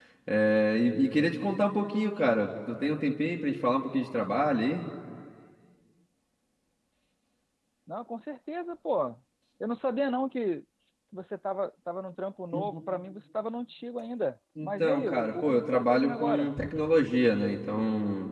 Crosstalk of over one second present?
Yes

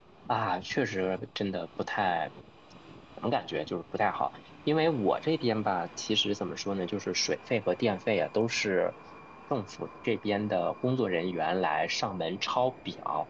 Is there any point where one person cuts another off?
No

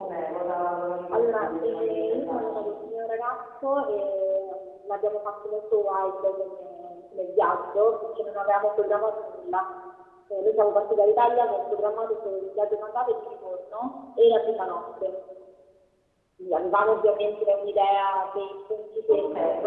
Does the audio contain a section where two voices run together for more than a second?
Yes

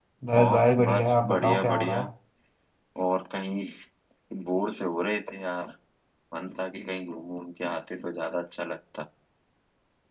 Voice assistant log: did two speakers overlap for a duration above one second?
Yes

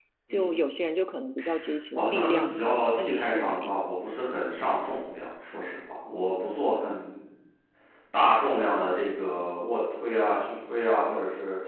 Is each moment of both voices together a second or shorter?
No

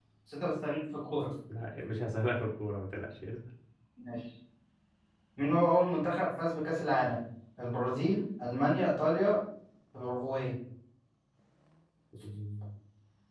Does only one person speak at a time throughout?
Yes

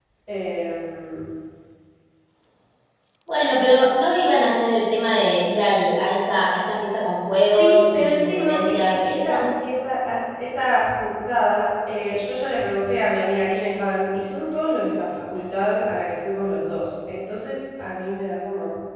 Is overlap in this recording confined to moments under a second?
No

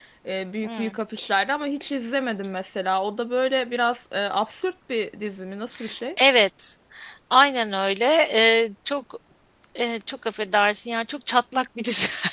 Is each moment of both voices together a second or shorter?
Yes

